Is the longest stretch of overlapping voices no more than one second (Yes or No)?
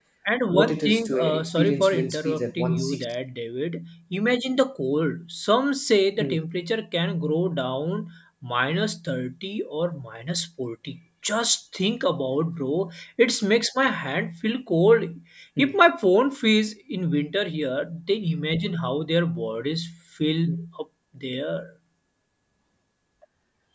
No